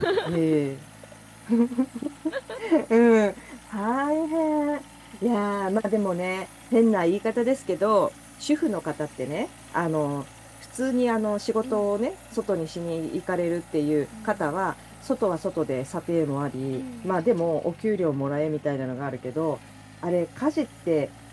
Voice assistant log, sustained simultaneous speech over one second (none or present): none